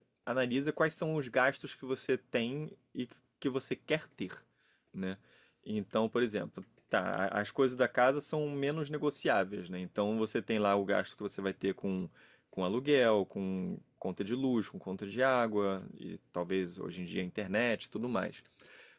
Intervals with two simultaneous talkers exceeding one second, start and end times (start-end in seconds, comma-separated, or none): none